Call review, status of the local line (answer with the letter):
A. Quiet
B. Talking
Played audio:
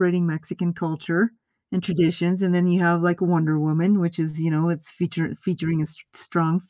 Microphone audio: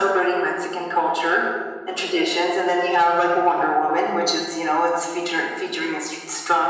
A